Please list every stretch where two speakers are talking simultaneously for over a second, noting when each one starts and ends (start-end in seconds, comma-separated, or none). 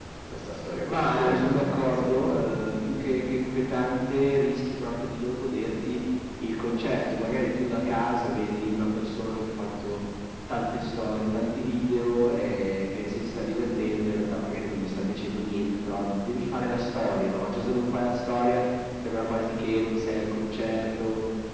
1.0-2.5